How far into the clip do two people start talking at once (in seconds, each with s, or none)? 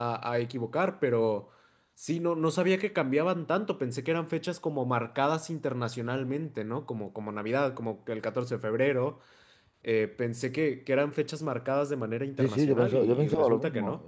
12.4 s